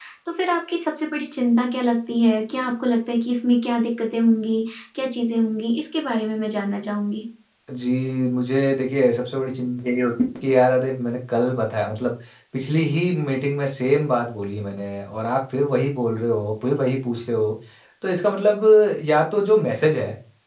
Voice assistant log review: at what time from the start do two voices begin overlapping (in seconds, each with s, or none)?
none